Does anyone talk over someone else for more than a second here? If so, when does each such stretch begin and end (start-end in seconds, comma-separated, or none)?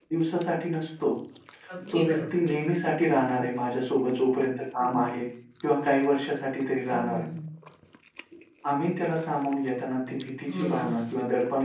none